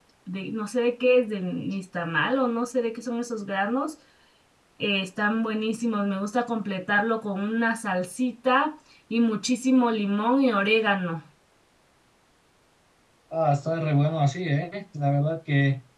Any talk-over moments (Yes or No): No